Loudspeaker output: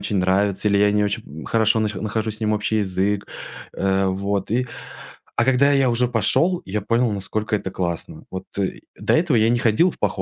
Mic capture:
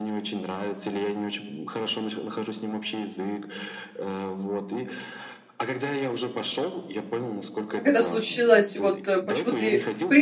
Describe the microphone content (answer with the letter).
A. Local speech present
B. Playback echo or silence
A